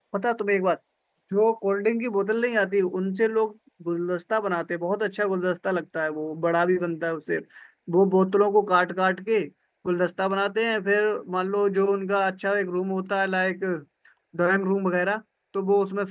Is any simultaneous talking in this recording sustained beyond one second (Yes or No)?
No